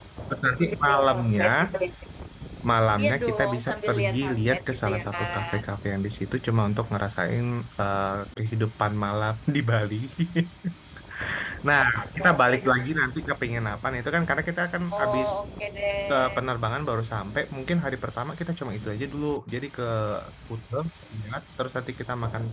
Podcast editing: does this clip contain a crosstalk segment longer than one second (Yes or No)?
Yes